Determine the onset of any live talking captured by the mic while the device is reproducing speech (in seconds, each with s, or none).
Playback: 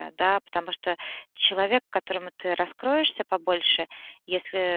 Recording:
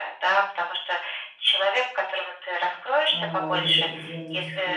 3.1 s